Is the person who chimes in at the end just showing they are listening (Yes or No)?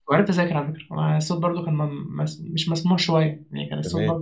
Yes